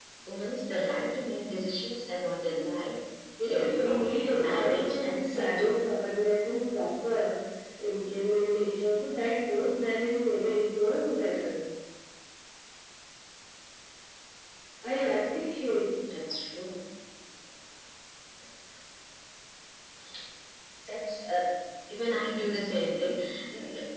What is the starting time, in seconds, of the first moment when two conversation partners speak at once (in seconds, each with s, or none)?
3.4 s